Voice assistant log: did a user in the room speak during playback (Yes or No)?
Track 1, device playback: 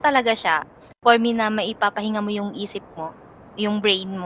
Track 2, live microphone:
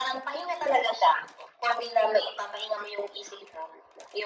No